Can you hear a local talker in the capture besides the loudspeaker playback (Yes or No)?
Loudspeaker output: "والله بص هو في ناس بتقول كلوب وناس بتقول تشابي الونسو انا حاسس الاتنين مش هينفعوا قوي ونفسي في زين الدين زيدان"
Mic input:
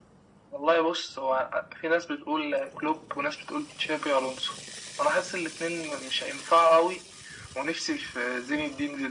No